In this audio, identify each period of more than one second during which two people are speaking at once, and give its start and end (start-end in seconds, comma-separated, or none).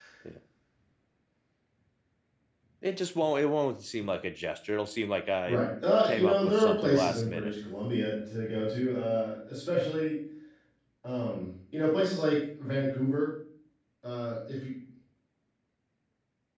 6.0-7.5